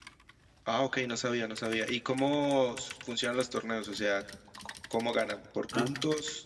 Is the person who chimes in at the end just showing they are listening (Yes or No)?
No